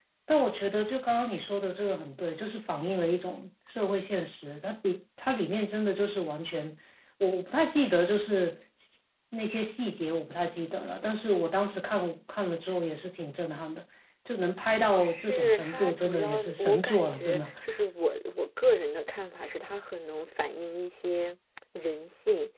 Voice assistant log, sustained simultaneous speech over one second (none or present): present